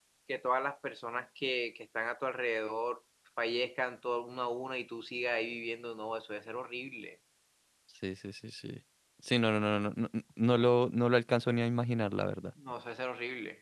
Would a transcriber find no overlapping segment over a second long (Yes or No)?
Yes